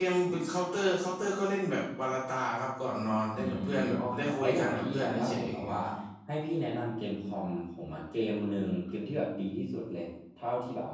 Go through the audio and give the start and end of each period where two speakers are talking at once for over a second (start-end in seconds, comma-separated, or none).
3.3-5.8